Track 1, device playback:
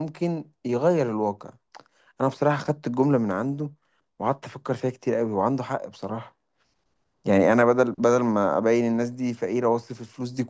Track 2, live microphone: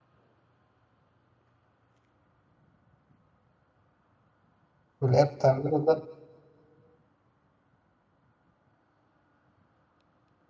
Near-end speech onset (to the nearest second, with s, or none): 5 s